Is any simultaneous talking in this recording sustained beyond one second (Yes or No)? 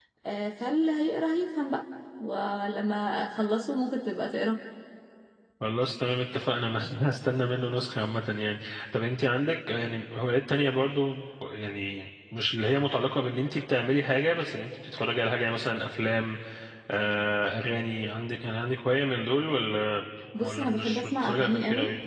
Yes